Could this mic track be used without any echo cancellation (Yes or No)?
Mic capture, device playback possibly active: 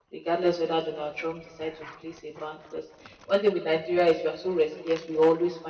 Yes